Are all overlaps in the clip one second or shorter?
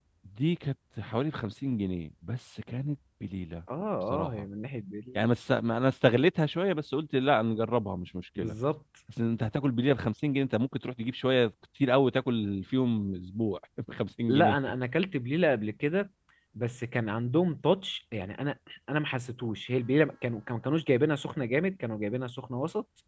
Yes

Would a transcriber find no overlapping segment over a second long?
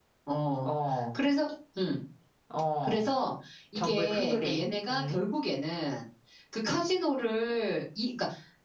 No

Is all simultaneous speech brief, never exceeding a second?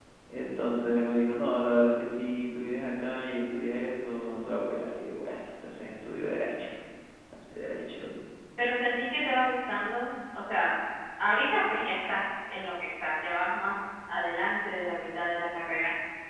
Yes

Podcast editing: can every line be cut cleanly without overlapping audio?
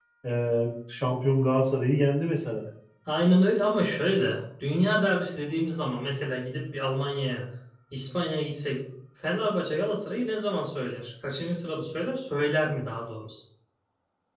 Yes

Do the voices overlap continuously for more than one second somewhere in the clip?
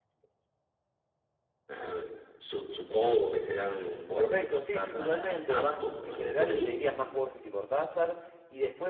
Yes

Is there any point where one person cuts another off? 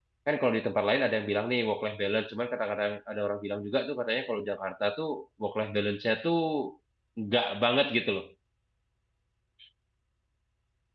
No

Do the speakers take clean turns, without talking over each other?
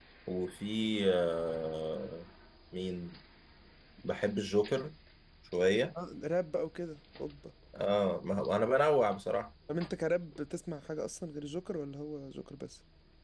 Yes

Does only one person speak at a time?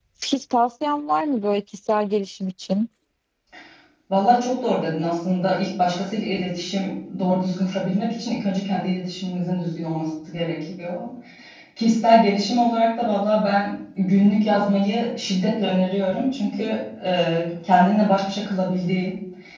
Yes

